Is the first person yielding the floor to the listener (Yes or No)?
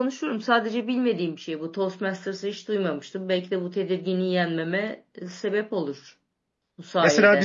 Yes